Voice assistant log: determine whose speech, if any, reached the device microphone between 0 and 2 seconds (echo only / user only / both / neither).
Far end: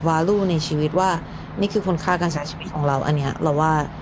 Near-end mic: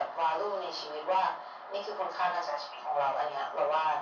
echo only